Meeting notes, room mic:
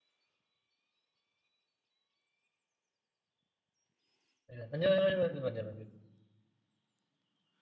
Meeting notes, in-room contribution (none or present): present